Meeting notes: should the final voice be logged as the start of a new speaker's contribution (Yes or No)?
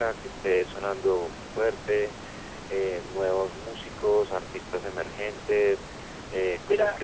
No